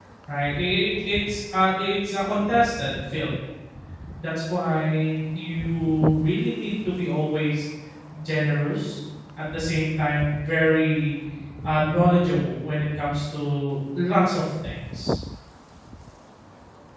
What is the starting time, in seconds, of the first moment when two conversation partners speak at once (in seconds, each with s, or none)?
none